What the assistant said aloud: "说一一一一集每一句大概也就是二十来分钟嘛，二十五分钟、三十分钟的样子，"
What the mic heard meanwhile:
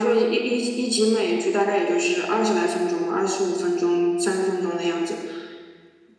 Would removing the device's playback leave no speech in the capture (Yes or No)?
Yes